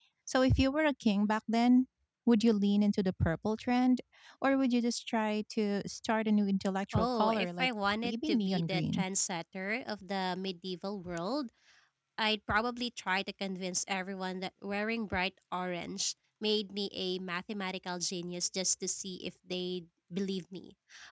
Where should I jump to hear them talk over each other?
6.9 s

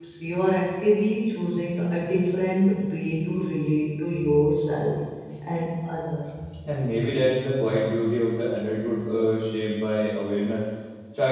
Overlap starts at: none

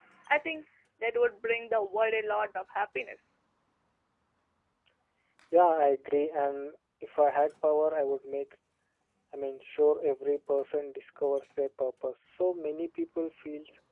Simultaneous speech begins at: none

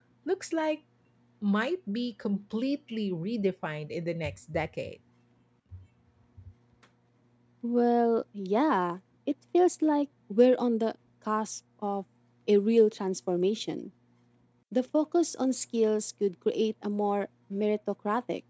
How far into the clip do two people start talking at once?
none

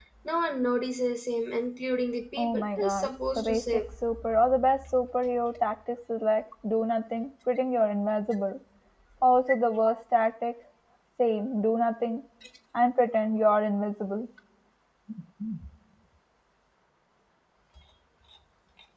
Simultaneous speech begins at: 2.4 s

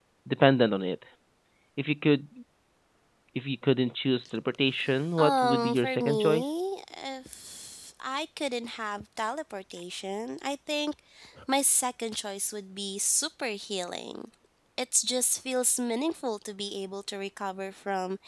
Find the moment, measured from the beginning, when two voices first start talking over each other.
5.2 s

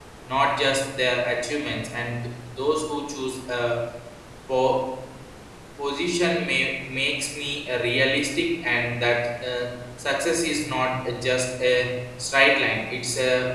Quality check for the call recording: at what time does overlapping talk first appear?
none

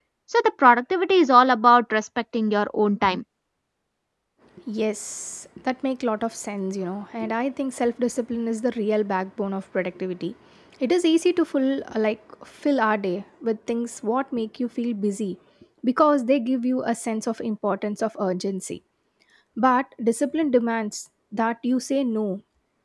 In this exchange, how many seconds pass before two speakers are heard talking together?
none

